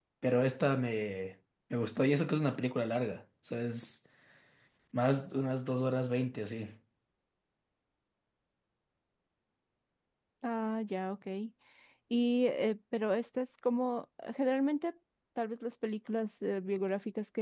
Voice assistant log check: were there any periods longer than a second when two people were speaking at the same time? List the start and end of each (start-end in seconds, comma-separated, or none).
none